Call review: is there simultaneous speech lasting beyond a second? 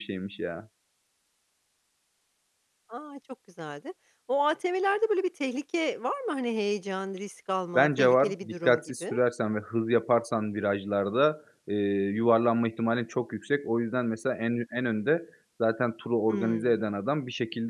Yes, from 7.8 s

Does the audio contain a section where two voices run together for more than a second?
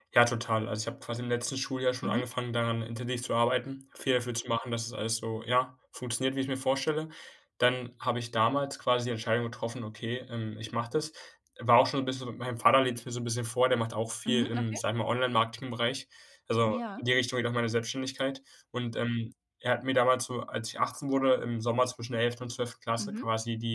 No

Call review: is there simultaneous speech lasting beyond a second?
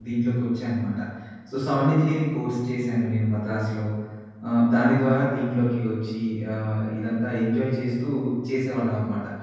No

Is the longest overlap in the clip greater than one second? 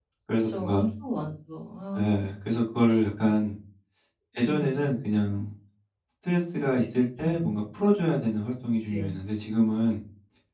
No

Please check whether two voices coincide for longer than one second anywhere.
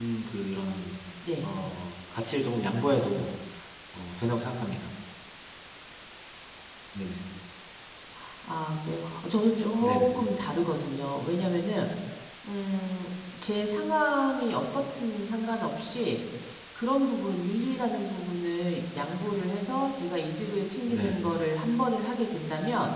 No

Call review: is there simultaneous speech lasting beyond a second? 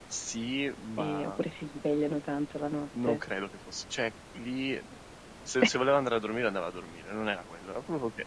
No

